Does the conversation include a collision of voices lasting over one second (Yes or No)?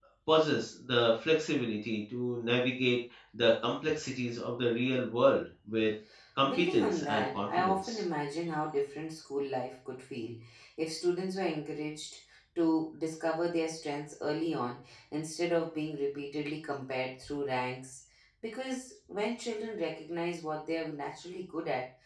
Yes